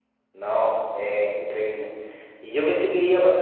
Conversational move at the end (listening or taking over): listening